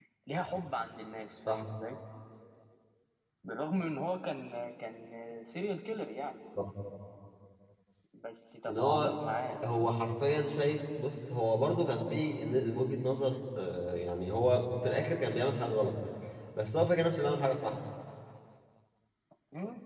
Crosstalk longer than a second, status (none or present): none